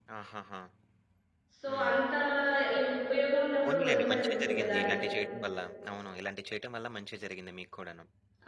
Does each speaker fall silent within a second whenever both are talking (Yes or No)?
No